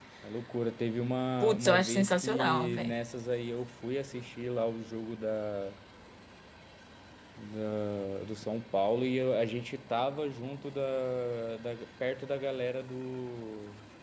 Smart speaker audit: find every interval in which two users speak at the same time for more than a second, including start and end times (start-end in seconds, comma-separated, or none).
1.4-2.9